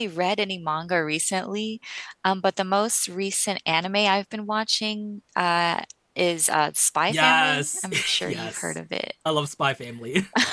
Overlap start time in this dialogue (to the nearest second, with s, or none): 7 s